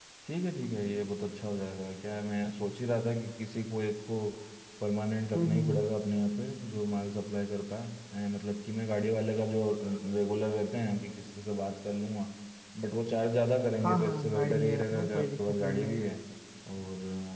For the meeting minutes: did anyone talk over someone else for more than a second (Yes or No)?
Yes